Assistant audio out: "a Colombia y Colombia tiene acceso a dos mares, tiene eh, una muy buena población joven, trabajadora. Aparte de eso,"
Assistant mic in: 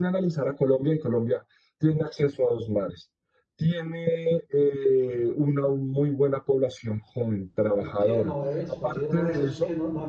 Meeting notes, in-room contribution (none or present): present